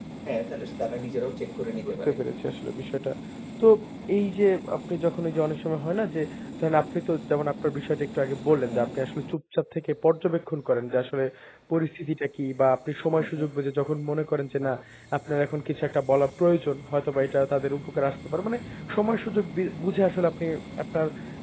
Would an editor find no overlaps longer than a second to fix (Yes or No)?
Yes